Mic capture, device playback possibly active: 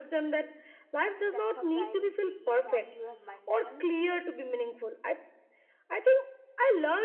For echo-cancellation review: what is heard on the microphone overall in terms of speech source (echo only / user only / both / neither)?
both